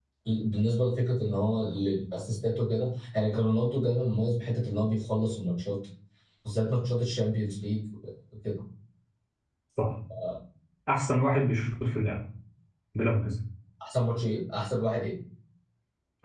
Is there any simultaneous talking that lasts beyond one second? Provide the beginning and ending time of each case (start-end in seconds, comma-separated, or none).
none